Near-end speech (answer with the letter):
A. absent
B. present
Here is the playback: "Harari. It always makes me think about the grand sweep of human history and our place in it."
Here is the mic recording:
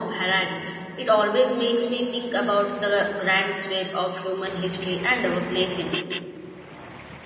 A